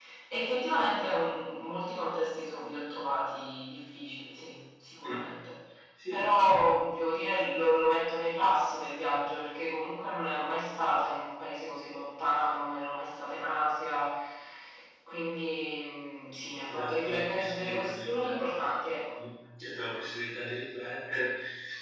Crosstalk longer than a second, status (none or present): present